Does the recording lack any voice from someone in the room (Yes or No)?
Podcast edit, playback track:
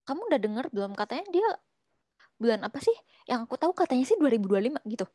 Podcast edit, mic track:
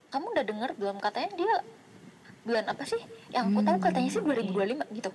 No